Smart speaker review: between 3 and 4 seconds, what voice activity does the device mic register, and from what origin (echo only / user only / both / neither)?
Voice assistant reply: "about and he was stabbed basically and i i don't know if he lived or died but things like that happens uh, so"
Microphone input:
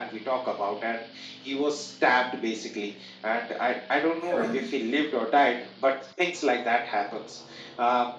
echo only